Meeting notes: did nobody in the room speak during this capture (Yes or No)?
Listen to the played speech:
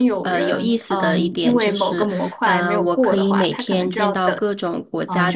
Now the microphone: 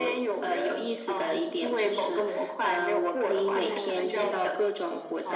No